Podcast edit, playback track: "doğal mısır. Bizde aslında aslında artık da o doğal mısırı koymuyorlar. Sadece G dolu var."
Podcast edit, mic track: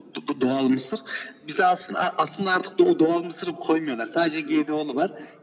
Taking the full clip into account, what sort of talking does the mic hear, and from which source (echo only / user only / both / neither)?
echo only